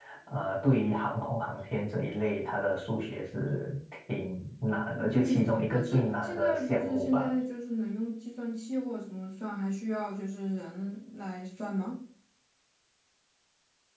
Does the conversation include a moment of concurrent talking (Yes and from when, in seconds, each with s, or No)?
Yes, from 5.0 s